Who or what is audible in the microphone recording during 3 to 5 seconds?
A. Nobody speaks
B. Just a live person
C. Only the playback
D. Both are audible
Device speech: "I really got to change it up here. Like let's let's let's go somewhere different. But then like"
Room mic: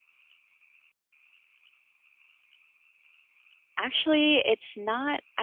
B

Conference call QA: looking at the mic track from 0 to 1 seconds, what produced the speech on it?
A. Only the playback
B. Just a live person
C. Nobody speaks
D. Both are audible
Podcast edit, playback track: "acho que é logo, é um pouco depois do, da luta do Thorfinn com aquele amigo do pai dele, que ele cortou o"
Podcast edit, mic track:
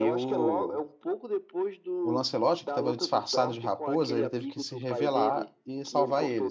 D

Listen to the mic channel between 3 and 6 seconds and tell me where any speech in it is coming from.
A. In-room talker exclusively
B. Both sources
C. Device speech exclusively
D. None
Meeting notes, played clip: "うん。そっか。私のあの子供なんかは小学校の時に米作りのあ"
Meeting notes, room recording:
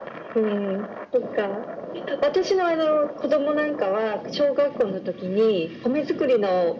C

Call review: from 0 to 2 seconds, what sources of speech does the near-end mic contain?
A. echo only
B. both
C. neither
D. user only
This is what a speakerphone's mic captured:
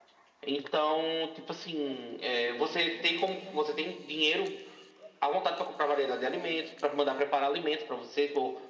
A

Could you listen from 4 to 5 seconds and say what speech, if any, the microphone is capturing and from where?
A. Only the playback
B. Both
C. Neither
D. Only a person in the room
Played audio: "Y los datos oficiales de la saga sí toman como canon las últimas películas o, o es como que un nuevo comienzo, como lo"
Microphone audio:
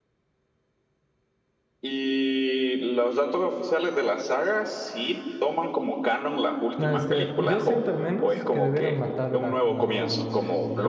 A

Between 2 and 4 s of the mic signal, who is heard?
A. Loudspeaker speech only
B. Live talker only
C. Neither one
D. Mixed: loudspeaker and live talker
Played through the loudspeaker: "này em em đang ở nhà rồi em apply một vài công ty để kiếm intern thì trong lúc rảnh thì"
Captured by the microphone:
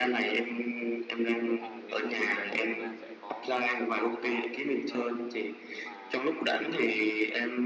D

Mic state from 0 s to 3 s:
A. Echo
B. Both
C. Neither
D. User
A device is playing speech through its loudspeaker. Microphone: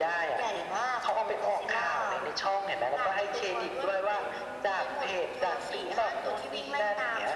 A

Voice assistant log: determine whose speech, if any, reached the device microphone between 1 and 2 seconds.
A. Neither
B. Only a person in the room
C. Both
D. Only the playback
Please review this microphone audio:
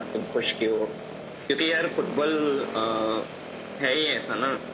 D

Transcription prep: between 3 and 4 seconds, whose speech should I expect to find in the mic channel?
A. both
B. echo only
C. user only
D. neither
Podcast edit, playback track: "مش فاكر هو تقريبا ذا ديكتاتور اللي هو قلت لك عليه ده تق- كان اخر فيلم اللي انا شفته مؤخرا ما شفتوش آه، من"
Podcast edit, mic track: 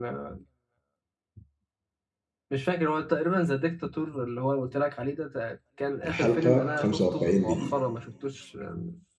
B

